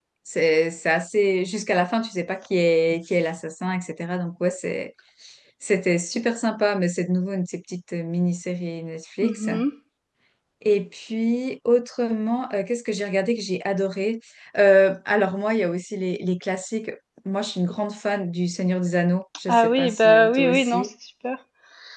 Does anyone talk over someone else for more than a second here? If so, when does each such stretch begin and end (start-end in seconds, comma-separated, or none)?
19.5-20.9